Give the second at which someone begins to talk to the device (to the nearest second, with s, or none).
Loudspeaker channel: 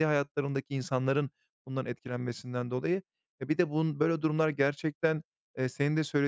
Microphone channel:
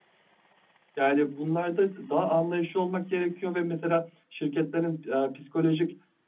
1 s